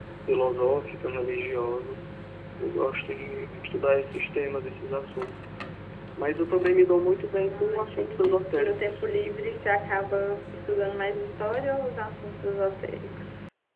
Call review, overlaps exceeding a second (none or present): present